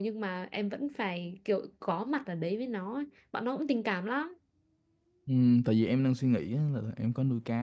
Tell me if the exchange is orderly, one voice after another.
Yes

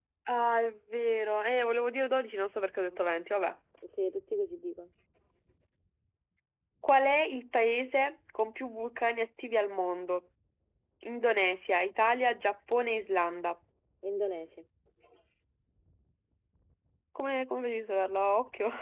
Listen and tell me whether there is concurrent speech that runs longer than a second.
No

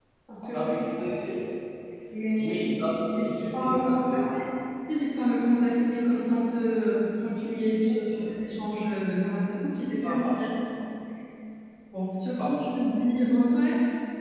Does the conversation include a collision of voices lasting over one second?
Yes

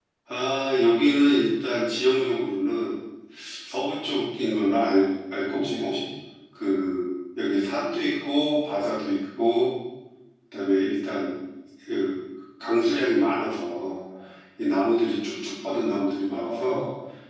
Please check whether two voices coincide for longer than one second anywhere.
No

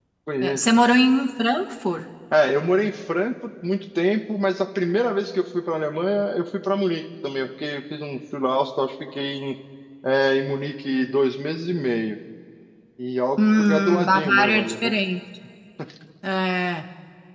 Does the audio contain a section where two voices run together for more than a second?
Yes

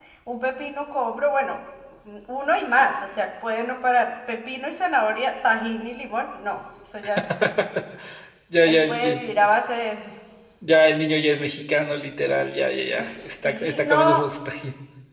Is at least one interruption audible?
Yes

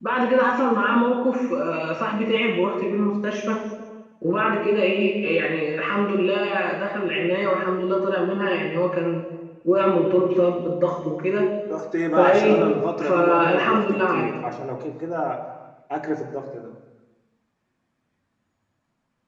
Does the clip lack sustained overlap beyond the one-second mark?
No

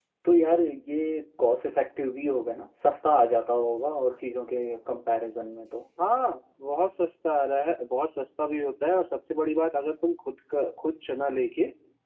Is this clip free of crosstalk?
Yes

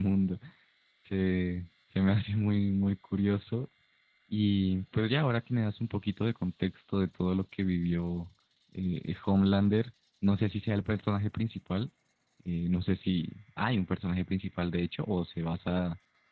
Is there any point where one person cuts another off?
No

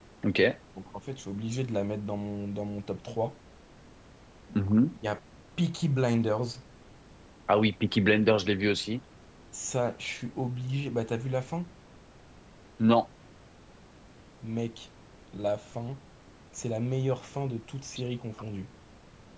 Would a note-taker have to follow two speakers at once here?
No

